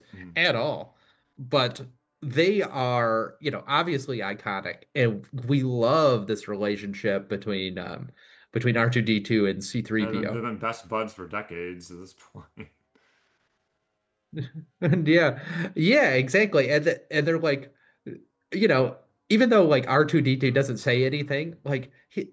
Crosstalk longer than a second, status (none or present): none